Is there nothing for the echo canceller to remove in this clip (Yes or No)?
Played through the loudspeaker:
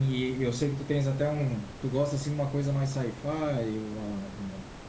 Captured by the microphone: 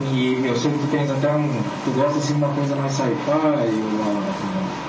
No